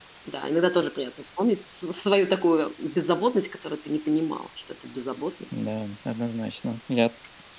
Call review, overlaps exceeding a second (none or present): none